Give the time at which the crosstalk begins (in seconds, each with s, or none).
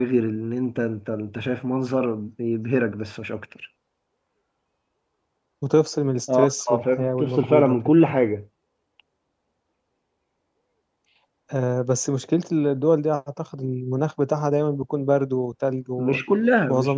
6.3 s